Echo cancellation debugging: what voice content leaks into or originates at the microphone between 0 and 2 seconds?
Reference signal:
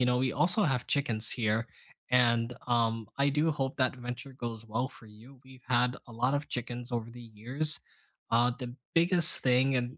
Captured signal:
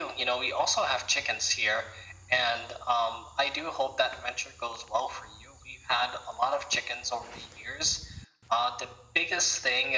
echo only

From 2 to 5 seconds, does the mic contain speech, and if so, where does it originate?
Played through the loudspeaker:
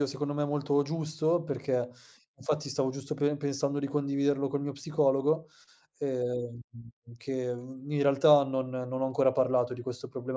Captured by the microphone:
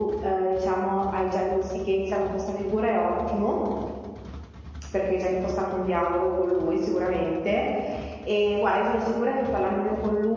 user only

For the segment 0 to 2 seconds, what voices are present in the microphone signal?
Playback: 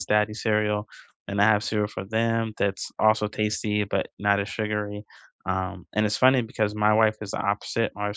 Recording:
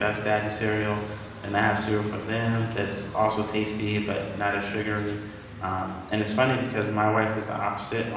echo only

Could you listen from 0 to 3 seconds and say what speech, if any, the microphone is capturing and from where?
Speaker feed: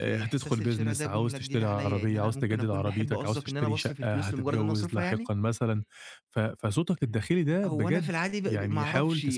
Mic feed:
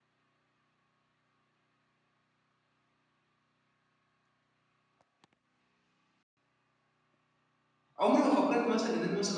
neither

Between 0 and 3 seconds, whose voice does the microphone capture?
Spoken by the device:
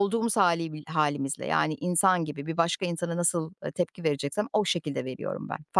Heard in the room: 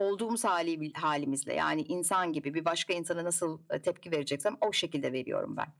echo only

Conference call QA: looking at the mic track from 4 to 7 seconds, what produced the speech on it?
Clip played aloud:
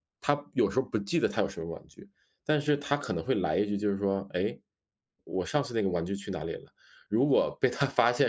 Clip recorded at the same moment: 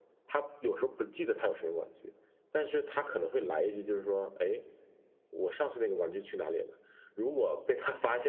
echo only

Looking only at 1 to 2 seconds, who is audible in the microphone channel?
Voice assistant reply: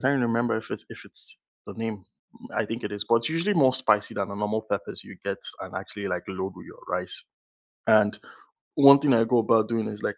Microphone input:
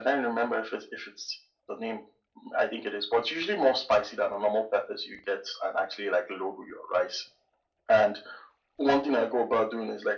echo only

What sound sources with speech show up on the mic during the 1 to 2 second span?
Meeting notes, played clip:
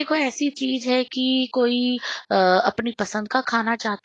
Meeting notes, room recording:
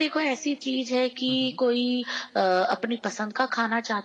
both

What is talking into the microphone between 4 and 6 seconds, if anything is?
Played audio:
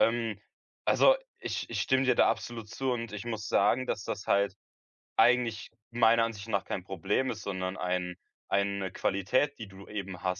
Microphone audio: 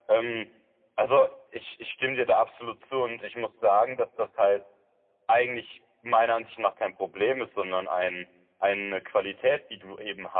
echo only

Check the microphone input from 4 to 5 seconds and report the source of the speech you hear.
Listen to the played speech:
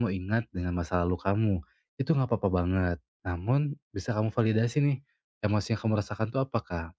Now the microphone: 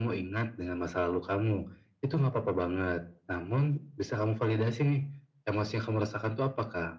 echo only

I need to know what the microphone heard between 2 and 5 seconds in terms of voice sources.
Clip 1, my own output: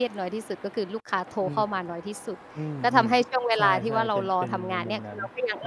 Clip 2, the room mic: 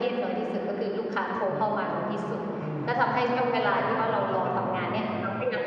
echo only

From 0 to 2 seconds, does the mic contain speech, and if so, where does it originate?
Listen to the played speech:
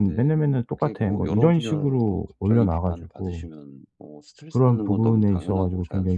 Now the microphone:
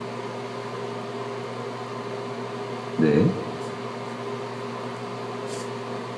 neither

